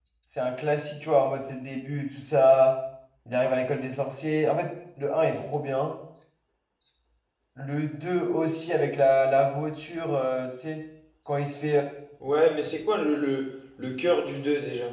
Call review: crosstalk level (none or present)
none